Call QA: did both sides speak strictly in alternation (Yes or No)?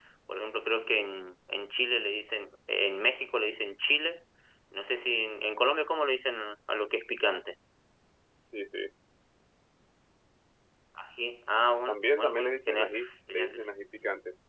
No